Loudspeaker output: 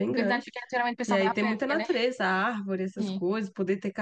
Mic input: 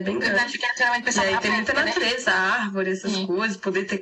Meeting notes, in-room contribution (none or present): none